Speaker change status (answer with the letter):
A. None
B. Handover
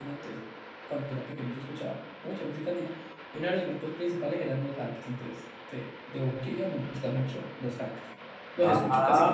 B